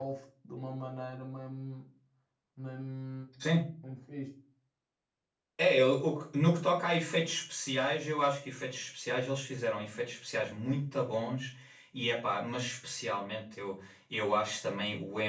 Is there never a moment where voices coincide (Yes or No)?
Yes